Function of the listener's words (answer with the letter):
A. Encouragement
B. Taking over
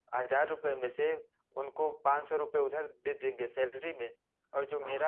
A